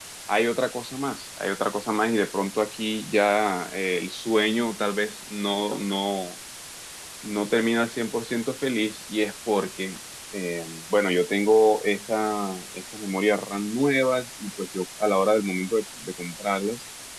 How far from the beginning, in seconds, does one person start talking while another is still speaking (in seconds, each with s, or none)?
none